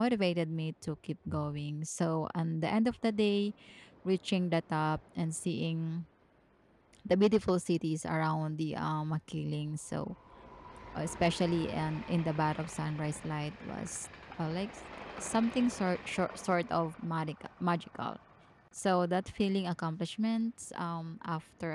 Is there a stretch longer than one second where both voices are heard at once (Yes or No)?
No